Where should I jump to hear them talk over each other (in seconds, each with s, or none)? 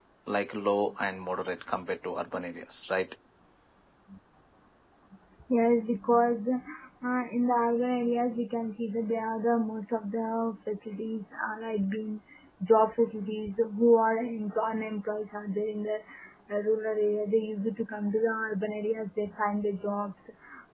none